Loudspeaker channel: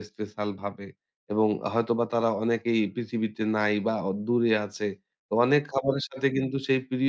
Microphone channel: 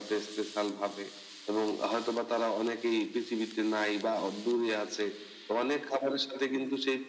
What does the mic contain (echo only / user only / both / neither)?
echo only